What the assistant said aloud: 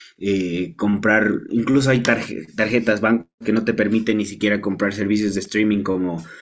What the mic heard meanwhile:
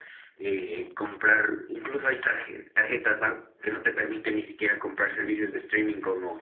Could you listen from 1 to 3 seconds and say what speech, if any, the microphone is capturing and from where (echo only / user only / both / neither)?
echo only